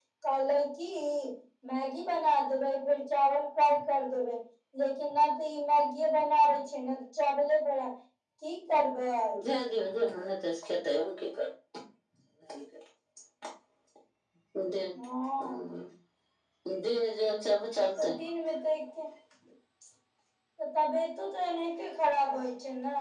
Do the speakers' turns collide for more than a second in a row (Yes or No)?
No